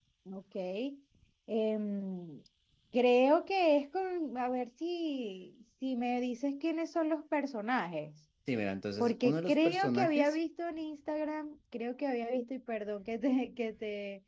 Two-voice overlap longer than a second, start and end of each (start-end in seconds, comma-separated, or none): 9.0-10.3